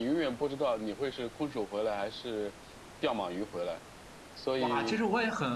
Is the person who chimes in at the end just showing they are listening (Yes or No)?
No